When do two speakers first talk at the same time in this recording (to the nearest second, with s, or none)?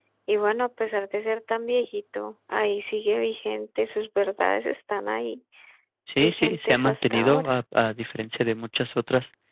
6 s